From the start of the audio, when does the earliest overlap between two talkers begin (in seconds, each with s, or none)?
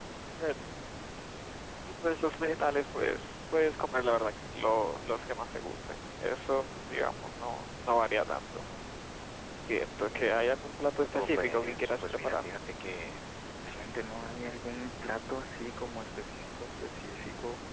11.1 s